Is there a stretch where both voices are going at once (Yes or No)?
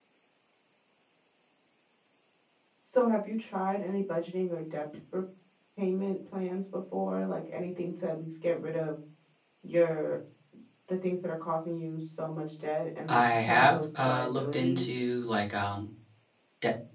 Yes